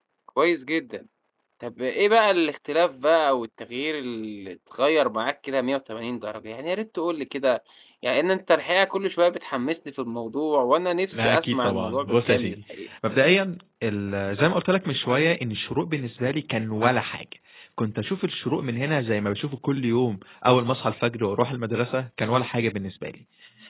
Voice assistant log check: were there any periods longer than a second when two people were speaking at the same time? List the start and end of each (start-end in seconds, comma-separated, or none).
11.1-12.6